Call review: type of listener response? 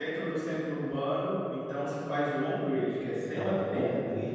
taking over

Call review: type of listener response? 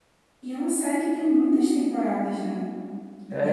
taking over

